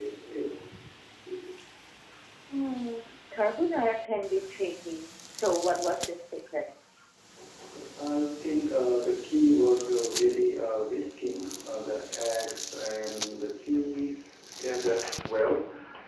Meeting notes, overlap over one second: none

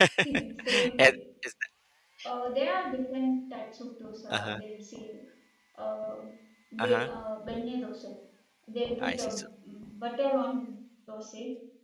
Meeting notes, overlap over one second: none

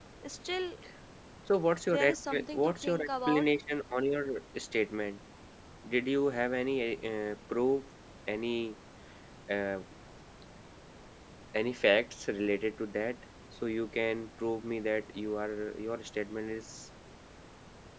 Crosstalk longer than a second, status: present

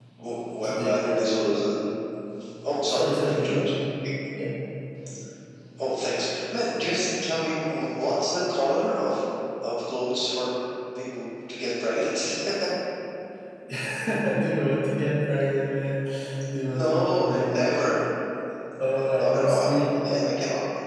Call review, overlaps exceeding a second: present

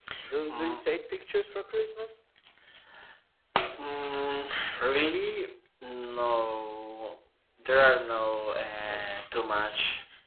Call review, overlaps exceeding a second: none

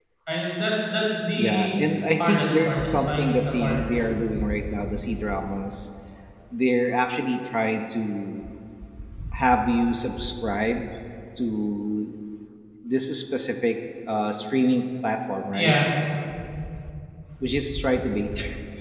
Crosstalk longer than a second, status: present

